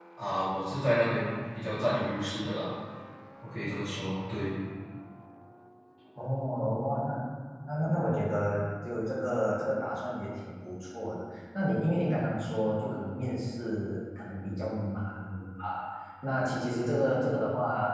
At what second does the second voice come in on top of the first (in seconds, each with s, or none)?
none